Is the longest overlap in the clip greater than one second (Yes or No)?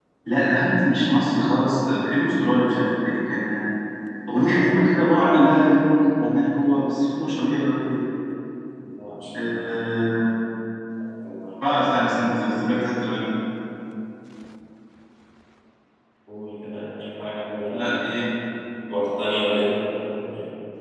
No